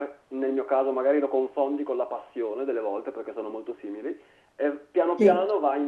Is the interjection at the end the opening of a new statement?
No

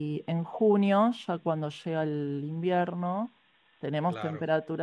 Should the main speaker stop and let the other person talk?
No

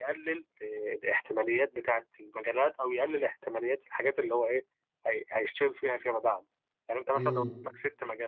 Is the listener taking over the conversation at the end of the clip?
No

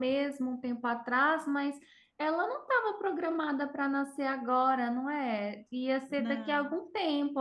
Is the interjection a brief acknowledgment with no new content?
Yes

